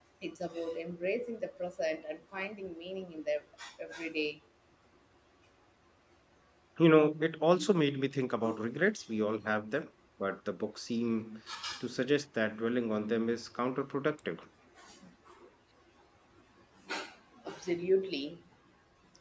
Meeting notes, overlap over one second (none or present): none